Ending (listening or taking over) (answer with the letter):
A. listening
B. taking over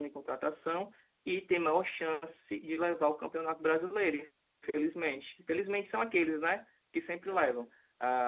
A